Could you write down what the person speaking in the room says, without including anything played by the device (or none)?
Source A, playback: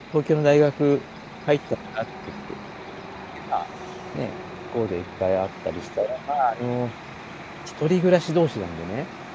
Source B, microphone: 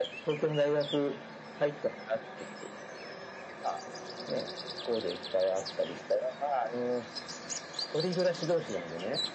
none